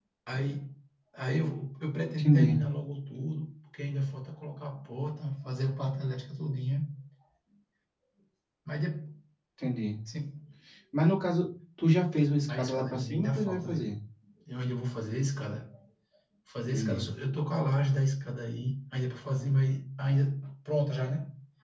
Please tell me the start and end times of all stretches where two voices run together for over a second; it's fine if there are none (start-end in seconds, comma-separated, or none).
12.5-13.8